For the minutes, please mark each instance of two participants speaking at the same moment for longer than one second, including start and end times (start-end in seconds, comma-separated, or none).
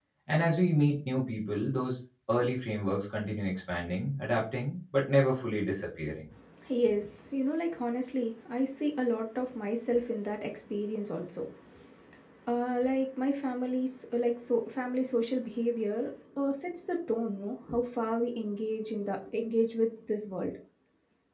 none